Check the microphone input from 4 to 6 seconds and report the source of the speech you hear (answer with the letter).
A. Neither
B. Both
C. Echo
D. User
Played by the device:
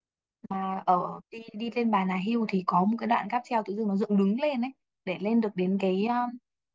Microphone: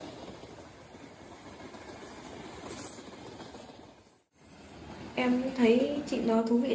D